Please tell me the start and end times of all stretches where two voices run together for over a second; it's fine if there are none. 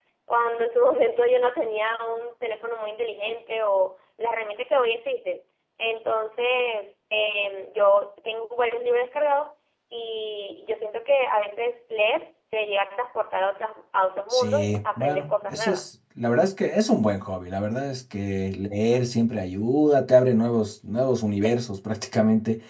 14.3-15.8

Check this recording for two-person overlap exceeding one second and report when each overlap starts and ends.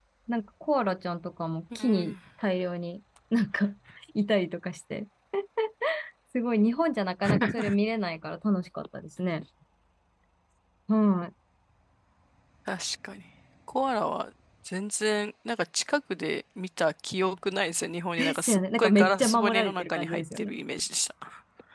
18.2-20.5

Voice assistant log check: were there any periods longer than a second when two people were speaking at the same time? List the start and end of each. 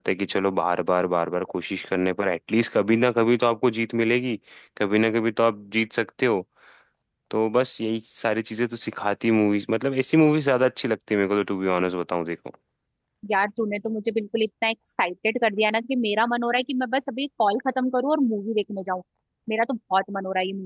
none

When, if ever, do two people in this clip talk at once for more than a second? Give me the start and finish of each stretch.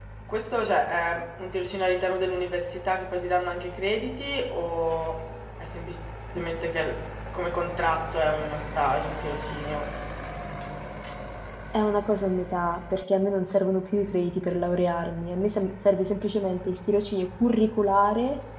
none

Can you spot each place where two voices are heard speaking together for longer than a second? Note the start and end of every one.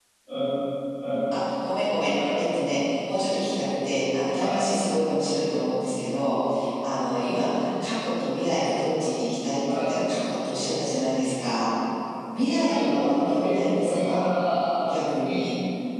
12.3-14.2

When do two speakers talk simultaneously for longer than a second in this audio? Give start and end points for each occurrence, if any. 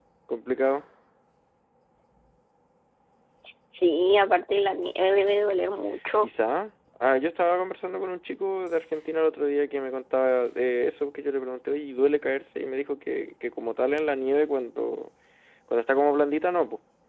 none

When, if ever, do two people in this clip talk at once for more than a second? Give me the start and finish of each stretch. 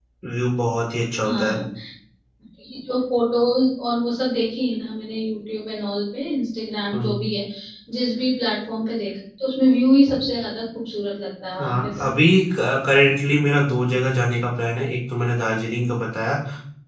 none

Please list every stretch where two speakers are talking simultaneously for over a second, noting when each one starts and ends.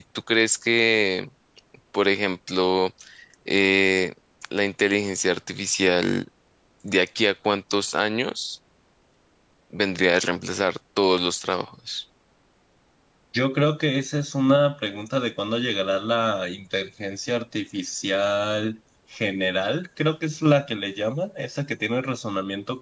none

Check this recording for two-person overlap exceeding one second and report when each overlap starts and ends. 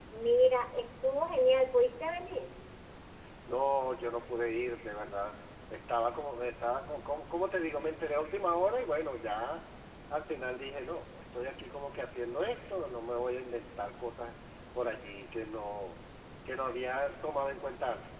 none

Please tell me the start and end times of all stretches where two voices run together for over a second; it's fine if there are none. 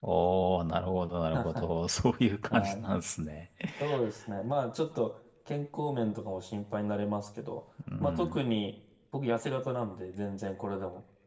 none

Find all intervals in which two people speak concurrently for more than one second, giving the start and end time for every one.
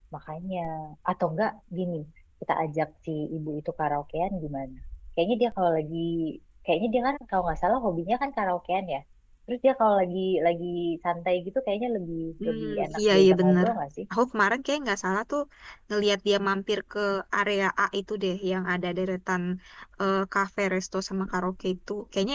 12.4-13.7

